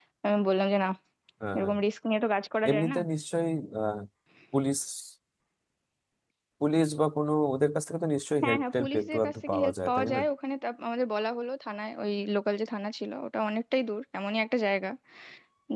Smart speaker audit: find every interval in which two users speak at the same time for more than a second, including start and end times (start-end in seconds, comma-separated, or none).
8.4-10.2